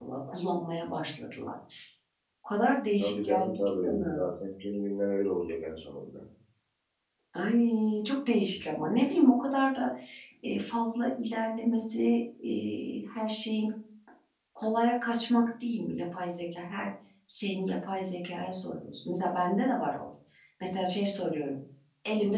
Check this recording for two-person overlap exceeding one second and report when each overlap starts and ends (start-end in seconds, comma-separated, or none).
3.0-4.2